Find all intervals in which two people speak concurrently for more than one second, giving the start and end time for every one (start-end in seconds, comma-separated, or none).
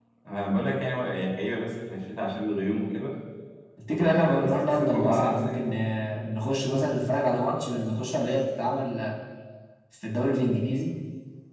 3.9-5.7